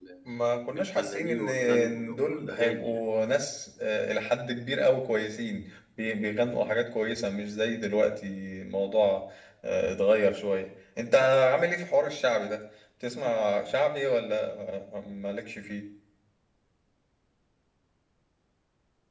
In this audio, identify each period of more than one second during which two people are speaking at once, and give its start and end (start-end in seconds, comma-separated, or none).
0.7-2.9